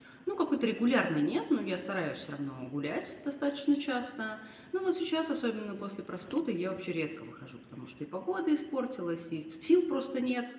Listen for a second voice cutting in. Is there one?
No

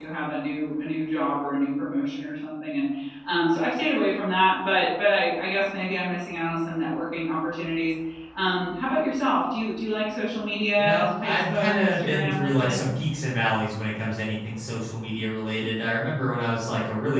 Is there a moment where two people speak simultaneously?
Yes, from 10.8 s

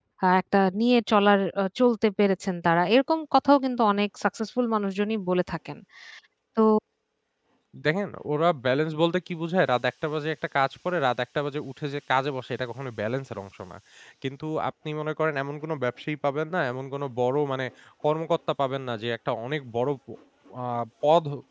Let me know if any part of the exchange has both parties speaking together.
No

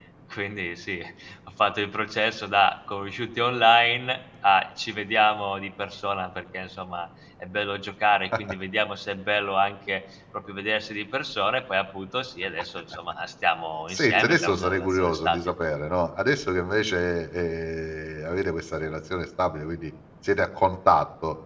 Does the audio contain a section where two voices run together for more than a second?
Yes, from 13.9 s

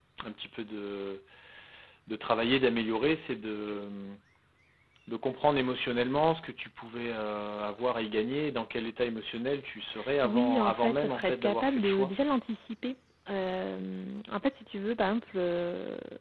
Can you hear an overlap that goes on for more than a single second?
Yes, from 10.2 s

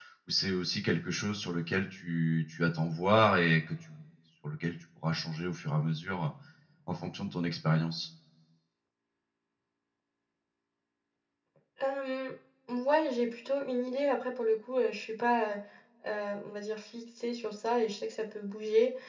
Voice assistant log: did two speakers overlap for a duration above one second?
No

